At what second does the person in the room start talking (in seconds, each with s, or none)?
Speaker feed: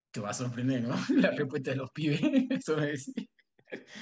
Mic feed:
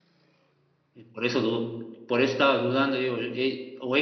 0.9 s